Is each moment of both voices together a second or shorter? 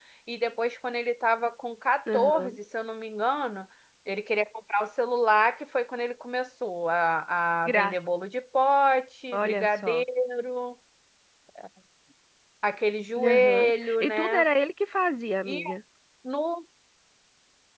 No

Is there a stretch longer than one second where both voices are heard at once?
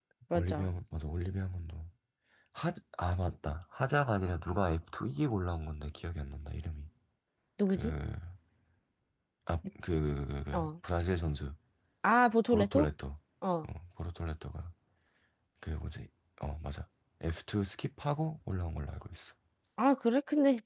No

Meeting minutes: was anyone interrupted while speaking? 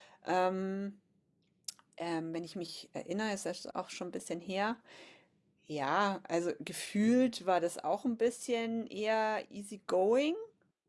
No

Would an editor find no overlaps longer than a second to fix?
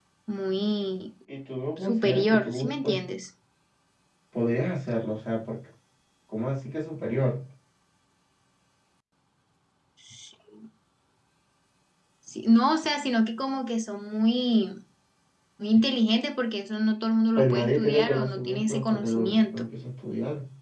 No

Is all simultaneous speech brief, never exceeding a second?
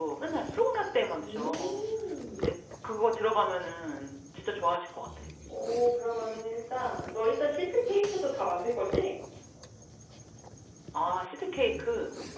Yes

